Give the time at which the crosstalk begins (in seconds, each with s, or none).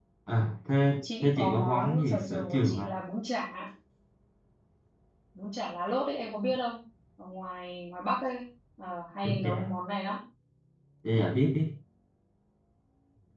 1.2 s